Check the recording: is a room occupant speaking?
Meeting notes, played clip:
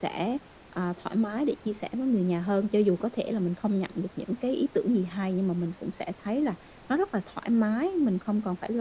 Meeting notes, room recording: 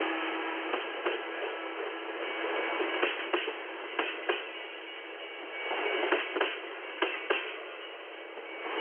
No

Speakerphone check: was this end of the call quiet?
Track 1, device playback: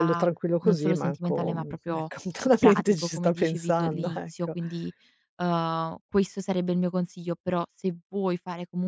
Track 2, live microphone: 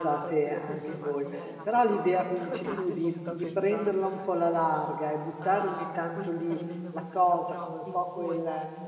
No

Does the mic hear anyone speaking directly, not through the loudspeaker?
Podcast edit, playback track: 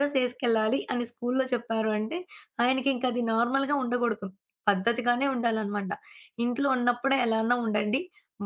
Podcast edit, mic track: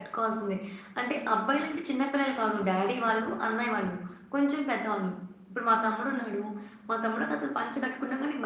Yes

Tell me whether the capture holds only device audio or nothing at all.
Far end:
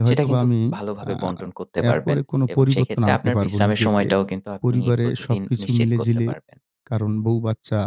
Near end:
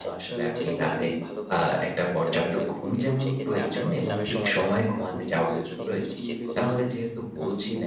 No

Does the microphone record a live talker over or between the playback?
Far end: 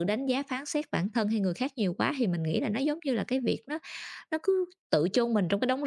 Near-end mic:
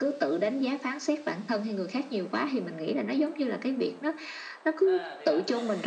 Yes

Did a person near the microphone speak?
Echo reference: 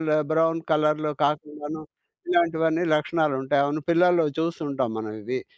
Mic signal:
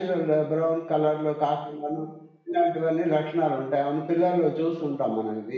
No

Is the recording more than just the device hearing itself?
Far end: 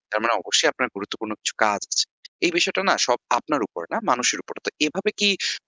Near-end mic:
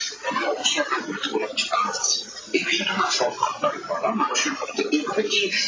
No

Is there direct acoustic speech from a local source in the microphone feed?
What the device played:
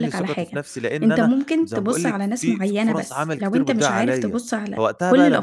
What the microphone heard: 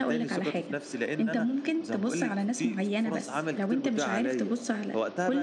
No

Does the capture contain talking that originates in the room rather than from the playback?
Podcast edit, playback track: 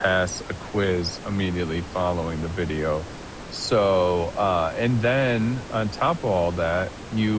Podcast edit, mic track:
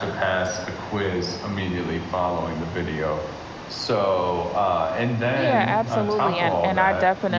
Yes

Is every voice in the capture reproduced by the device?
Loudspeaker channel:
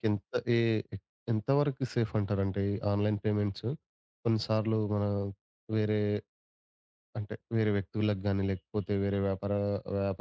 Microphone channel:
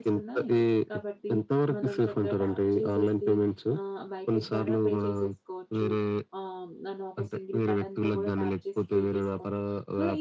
No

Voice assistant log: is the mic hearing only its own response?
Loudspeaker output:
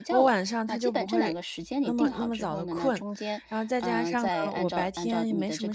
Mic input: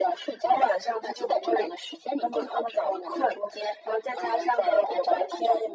Yes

